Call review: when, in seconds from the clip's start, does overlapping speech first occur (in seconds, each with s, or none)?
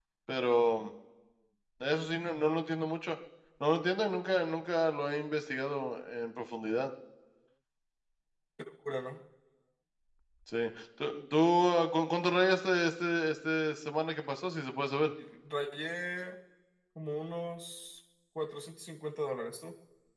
none